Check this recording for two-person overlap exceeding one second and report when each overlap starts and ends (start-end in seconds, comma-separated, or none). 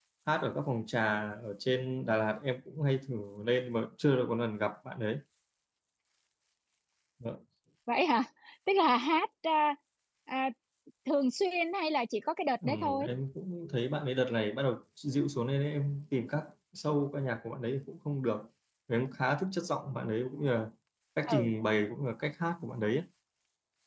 none